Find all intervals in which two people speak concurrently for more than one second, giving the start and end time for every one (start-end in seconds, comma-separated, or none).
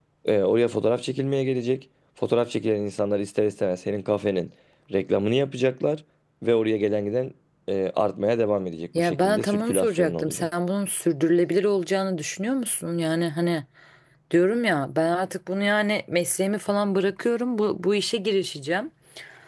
9.0-10.5